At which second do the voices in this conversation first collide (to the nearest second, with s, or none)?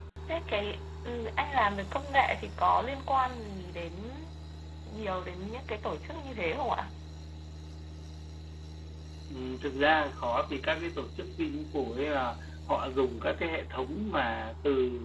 none